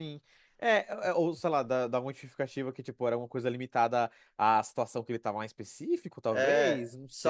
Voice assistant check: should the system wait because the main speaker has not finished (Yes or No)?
No